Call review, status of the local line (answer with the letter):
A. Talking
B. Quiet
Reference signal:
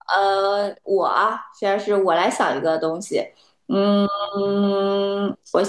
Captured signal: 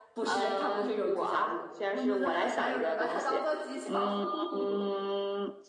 A